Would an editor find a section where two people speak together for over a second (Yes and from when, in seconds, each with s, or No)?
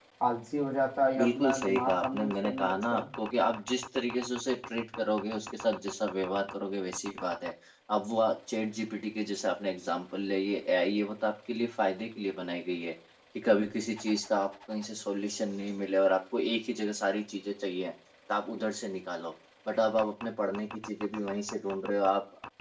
Yes, from 1.2 s